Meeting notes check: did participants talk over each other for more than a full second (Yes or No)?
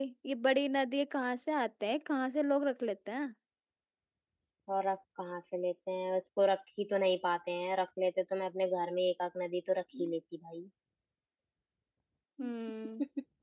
No